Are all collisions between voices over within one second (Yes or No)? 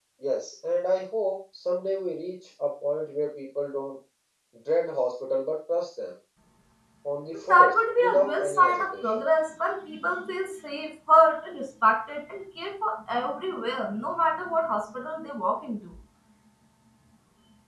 No